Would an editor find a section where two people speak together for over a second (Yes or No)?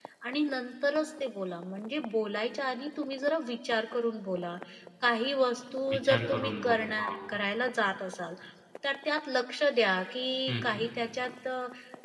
Yes